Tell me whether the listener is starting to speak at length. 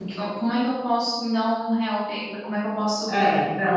Yes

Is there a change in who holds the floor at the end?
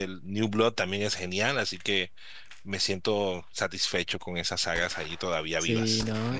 Yes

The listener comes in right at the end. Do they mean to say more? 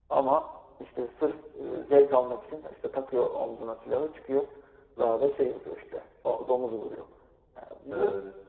No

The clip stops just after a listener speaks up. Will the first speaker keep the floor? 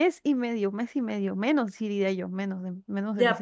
No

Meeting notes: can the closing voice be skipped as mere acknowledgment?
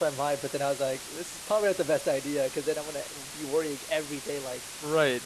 No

